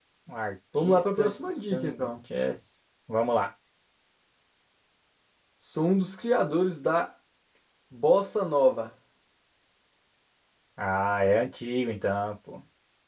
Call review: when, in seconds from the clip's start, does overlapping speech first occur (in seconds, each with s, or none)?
0.8 s